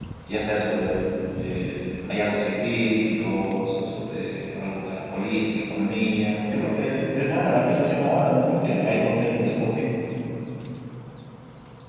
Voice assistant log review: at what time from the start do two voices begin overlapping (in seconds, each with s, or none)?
none